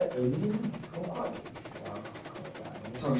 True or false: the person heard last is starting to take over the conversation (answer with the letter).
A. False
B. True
B